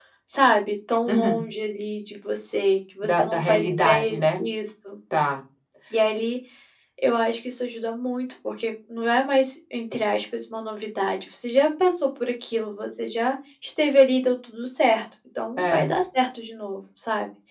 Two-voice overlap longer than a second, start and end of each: 3.0-4.4

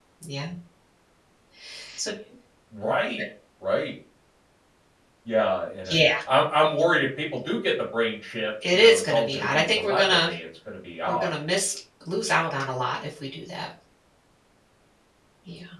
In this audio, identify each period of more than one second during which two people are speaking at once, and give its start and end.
8.6-10.3

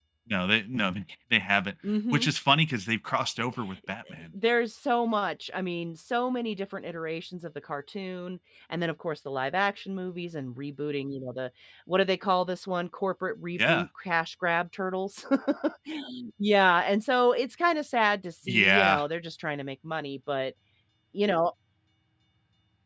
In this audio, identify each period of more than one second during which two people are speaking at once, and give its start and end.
none

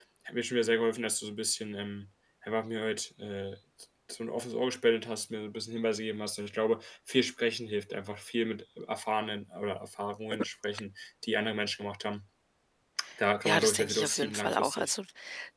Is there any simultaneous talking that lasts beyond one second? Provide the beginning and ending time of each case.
13.4-14.9

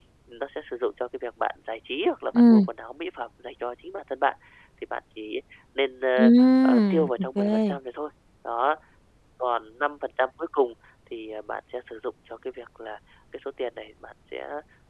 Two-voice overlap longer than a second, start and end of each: 6.2-7.6

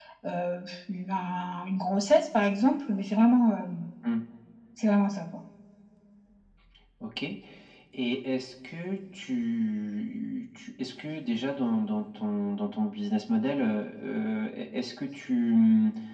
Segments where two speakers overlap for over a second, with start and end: none

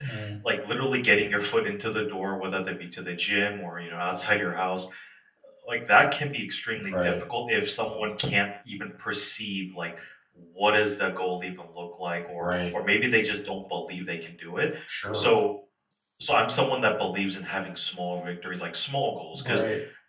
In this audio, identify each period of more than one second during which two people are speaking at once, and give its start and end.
none

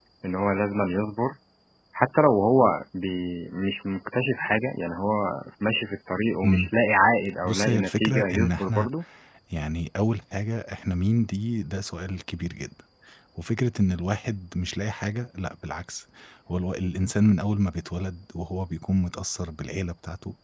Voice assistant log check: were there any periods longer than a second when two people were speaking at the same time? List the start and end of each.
7.4-8.9

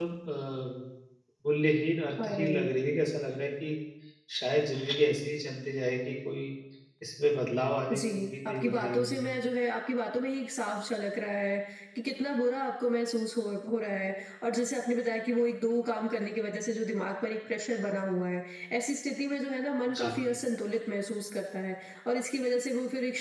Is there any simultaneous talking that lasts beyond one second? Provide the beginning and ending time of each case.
7.9-9.2

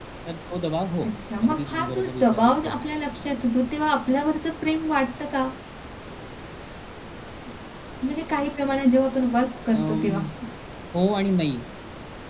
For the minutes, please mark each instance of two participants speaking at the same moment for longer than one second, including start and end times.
1.4-2.7

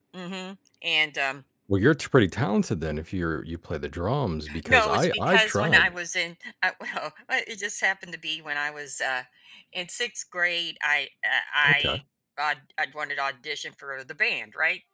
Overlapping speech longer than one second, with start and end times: 4.7-5.9

